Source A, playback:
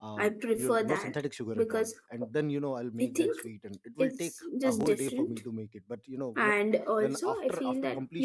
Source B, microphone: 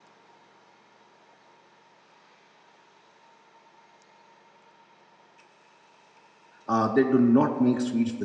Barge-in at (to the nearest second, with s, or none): 7 s